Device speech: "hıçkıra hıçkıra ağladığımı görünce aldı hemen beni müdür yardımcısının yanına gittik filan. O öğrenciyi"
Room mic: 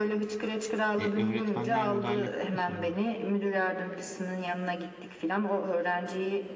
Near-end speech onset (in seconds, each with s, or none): 1.0 s